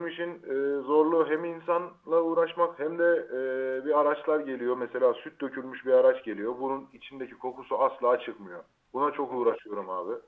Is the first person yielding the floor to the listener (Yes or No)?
No